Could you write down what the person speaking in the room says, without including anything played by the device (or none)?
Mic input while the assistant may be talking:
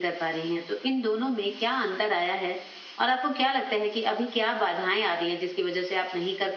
none